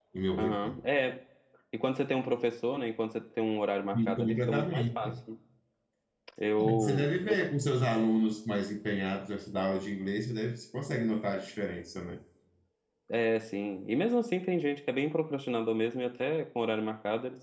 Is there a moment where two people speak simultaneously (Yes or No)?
Yes